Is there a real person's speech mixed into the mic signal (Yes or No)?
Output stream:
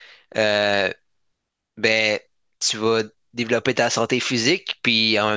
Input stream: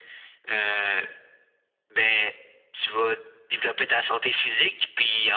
No